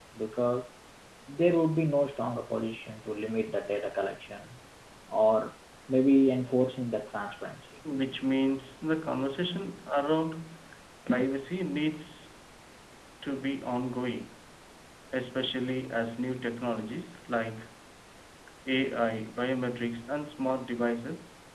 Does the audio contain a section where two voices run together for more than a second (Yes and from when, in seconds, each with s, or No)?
No